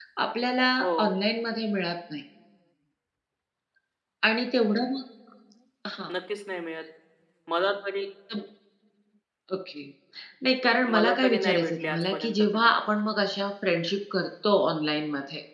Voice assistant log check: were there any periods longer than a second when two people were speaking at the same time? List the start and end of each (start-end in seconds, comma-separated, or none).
10.9-12.7